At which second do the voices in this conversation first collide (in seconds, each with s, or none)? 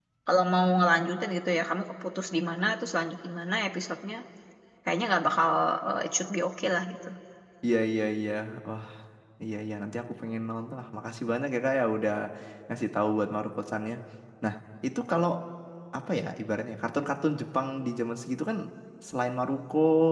none